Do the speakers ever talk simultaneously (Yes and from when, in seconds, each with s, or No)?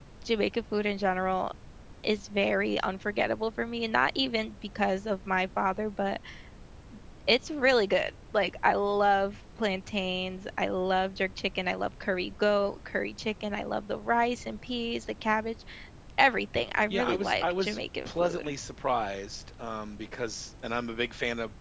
Yes, from 16.9 s